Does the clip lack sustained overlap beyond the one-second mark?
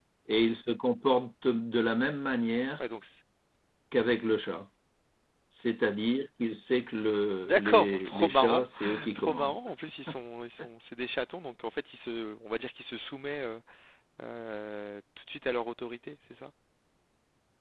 No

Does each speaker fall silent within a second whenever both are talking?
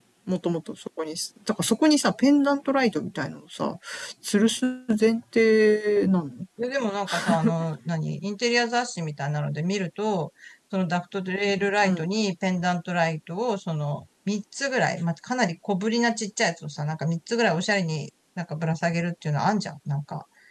Yes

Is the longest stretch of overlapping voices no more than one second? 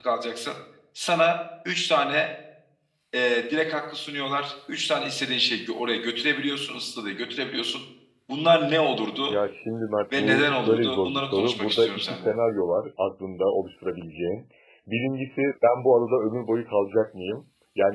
No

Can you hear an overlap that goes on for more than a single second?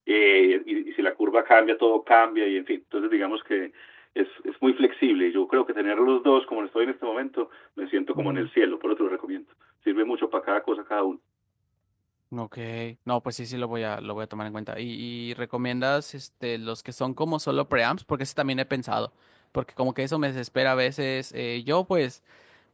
No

